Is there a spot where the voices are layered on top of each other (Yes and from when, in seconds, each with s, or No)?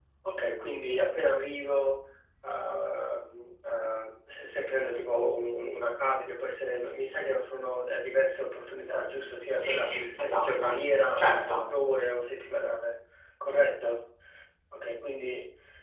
Yes, from 9.6 s